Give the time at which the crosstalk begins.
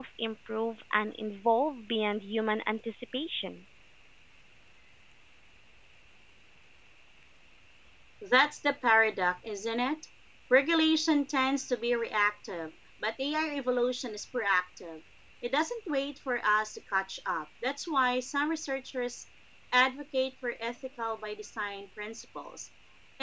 none

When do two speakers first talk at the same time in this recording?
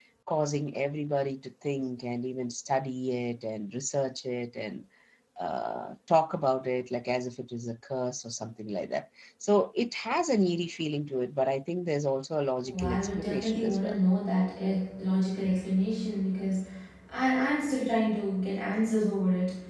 13 s

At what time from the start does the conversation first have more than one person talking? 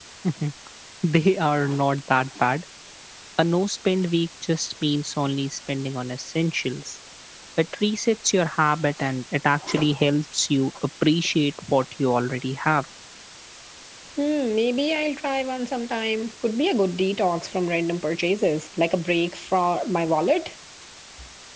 none

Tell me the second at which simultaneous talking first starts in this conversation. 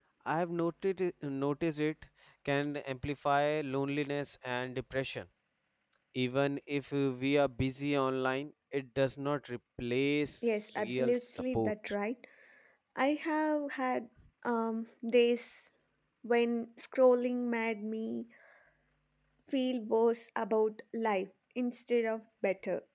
10 s

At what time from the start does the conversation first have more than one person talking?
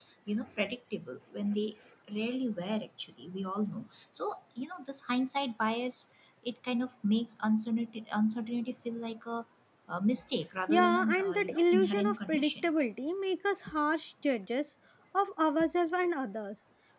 11 s

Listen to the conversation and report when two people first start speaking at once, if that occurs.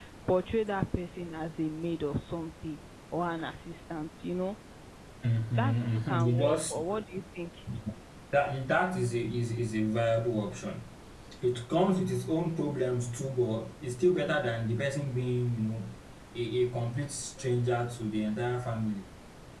6 s

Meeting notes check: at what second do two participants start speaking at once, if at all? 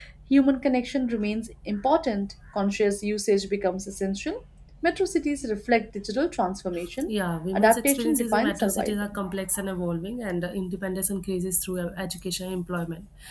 8 s

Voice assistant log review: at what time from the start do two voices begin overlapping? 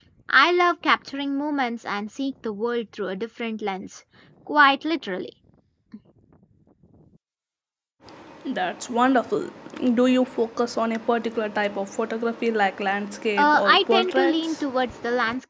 13 s

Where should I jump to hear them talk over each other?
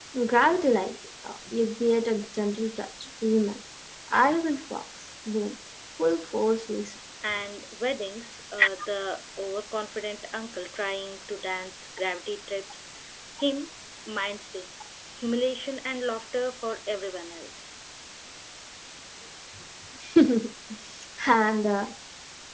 none

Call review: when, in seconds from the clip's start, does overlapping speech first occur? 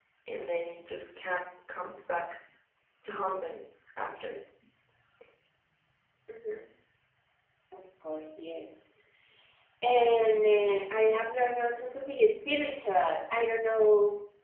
none

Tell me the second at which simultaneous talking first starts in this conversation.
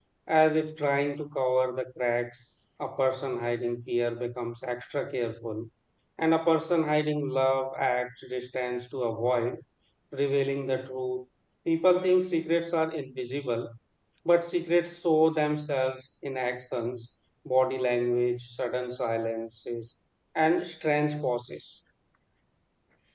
none

